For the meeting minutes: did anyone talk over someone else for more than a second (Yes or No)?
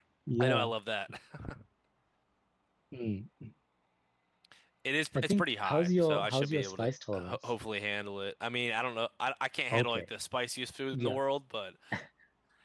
Yes